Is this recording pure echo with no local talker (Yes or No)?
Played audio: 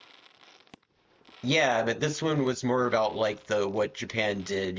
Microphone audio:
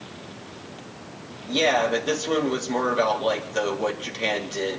Yes